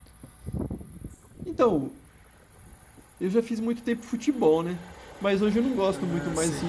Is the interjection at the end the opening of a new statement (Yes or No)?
No